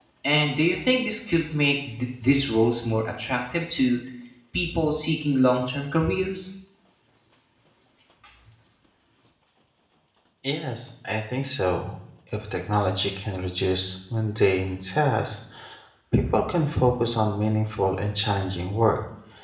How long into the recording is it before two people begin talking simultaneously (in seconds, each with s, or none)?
none